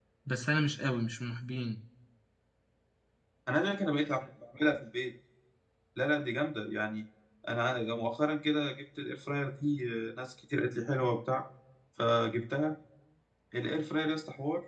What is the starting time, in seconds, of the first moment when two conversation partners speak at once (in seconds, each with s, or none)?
none